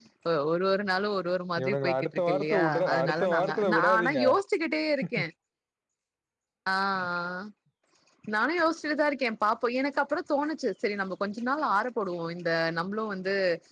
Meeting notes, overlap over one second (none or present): present